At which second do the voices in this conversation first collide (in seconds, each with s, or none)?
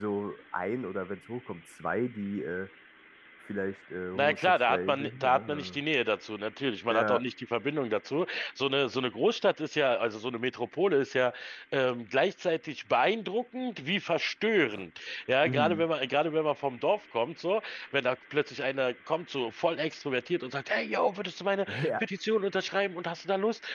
4.2 s